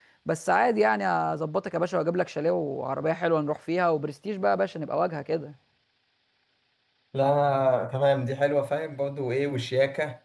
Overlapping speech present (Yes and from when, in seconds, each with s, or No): No